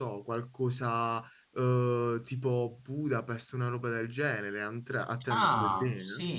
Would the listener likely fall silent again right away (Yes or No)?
No